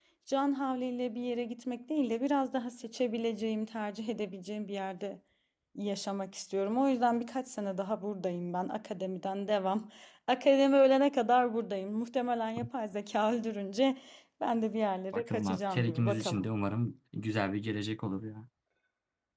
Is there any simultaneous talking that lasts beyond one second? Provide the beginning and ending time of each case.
15.1-16.5

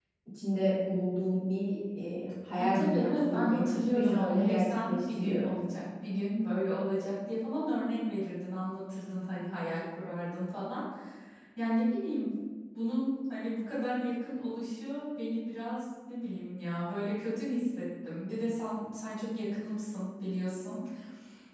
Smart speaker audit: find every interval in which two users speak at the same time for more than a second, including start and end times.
2.6-5.5

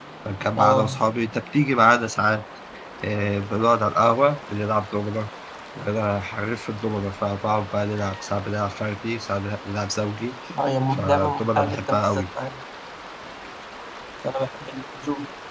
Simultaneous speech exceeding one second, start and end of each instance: 10.9-12.2

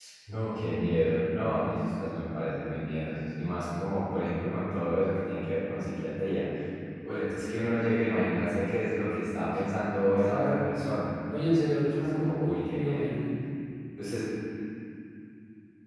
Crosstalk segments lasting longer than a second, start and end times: 11.8-13.1

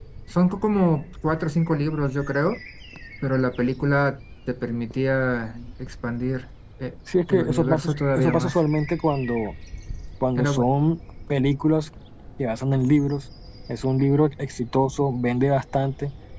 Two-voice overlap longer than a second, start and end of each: 7.3-8.6

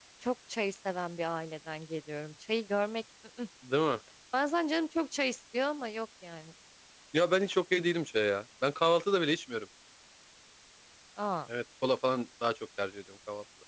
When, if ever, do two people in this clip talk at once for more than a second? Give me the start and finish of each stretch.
none

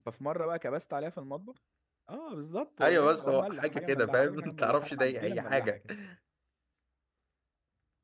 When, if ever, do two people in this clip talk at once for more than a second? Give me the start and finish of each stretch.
2.8-5.8

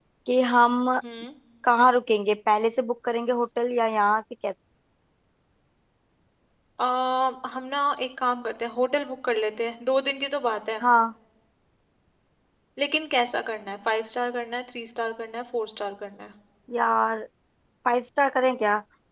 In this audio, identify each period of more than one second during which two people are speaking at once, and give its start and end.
none

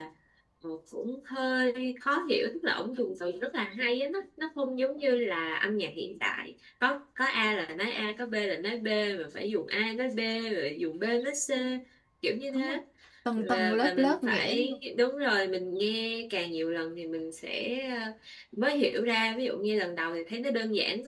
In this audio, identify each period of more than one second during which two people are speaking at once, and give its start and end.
13.4-14.8

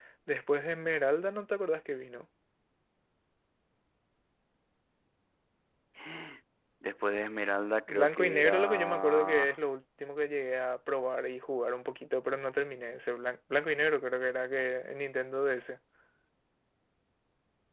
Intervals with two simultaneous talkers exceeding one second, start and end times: 7.9-9.5

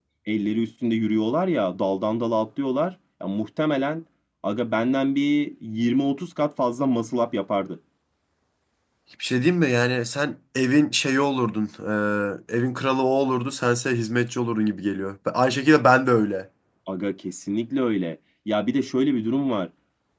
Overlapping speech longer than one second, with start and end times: none

